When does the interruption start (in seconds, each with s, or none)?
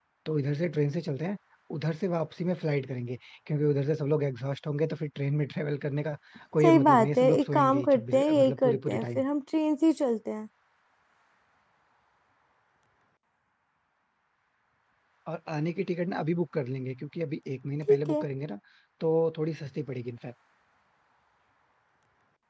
6.6 s